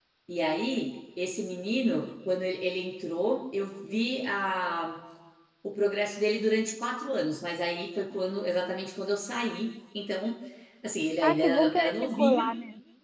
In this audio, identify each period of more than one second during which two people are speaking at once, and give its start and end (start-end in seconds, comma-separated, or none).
11.2-12.4